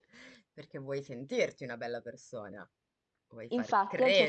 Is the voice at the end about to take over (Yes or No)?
Yes